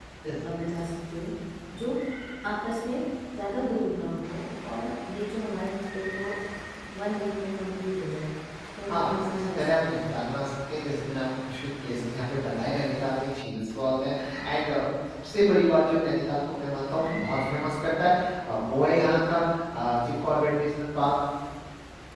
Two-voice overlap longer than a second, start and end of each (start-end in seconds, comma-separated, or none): 8.9-10.2